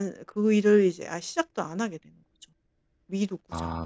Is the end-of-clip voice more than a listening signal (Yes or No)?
Yes